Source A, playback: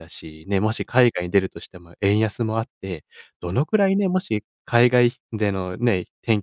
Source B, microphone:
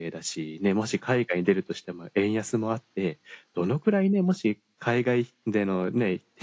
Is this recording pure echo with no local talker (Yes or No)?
Yes